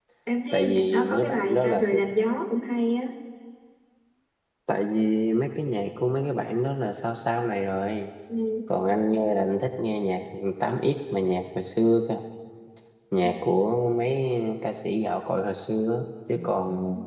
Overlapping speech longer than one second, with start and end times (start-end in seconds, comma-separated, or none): 0.5-2.0